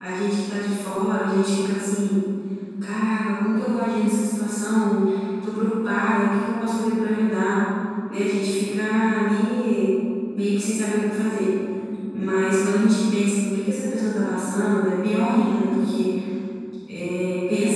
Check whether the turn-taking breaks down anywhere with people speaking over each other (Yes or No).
No